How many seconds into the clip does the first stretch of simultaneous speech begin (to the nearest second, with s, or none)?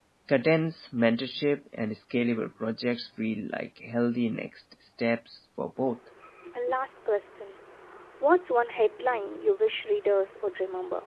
none